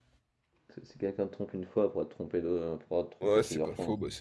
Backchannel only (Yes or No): No